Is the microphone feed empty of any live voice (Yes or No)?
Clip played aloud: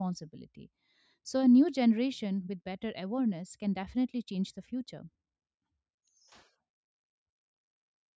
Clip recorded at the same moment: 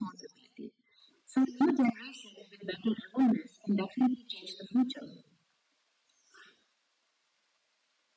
Yes